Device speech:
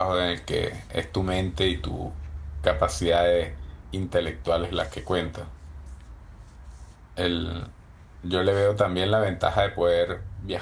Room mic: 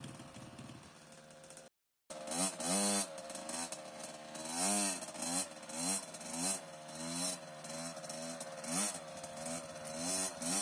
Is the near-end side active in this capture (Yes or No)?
No